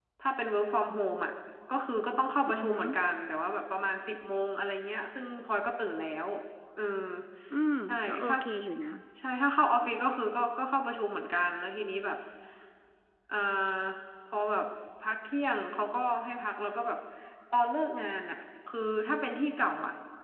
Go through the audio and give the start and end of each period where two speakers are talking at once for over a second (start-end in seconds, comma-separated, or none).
none